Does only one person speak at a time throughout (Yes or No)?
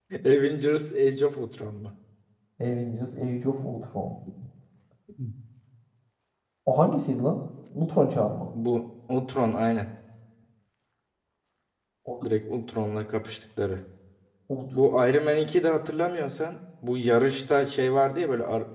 Yes